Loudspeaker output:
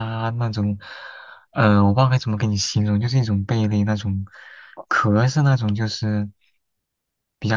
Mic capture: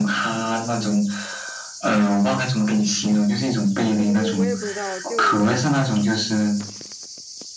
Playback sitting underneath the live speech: No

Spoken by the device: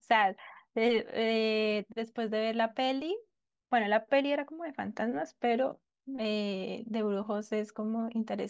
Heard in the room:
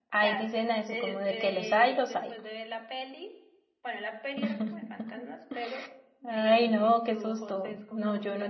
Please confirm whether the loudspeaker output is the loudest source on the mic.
No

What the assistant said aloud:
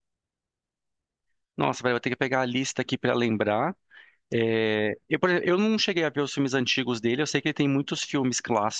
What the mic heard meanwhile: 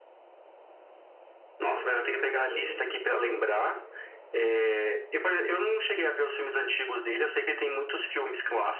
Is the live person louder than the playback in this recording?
No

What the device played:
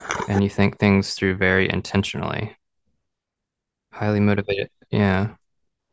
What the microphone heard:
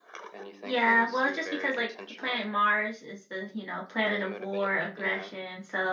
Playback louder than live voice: No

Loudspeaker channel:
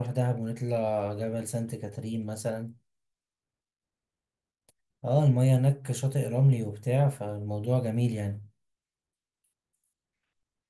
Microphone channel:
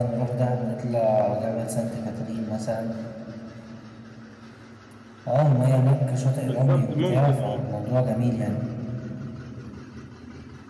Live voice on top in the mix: No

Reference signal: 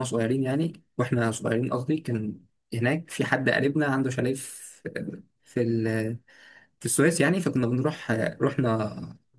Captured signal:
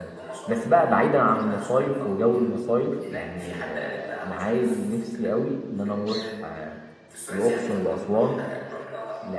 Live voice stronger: Yes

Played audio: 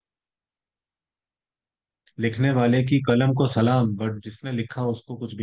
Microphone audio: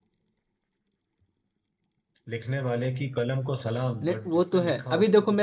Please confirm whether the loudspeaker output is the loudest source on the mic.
No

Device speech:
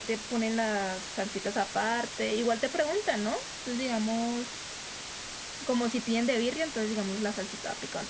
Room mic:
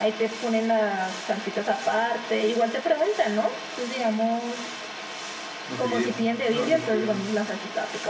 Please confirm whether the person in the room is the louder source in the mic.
No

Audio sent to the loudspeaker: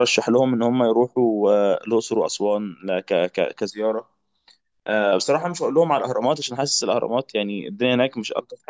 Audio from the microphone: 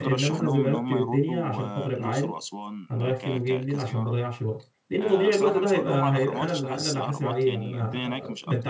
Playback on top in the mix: No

